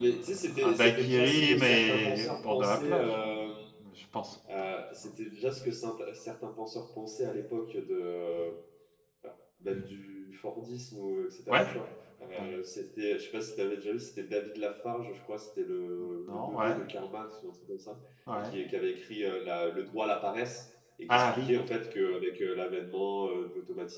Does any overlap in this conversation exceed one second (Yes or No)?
Yes